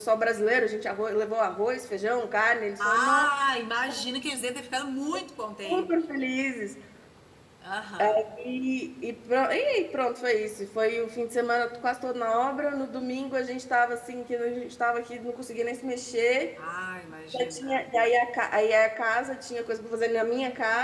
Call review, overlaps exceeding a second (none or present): none